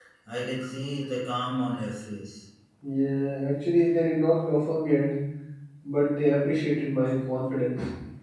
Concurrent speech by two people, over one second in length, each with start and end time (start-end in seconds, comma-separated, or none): none